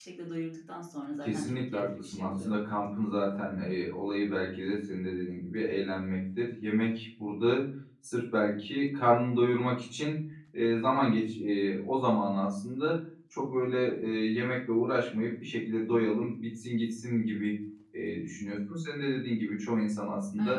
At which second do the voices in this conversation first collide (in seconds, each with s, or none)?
1.2 s